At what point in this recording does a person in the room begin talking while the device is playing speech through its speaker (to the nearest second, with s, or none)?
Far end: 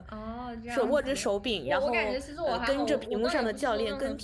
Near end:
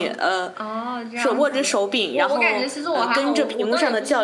none